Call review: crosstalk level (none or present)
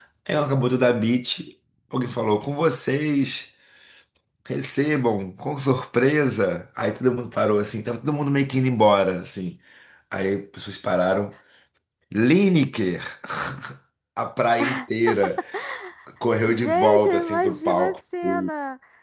present